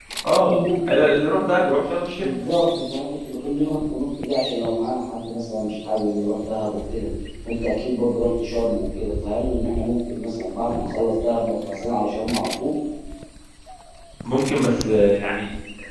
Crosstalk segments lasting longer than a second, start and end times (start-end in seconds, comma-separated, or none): none